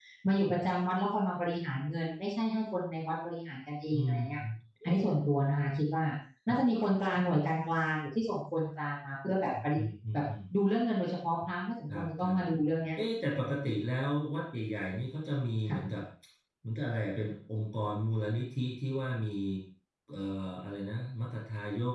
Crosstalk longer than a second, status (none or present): none